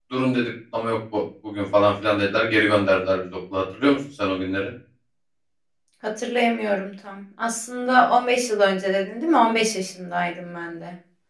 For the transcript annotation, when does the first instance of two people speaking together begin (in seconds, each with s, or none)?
none